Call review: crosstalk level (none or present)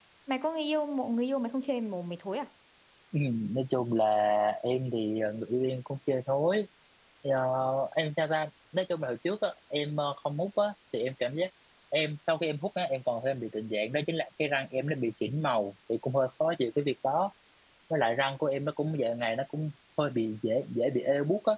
none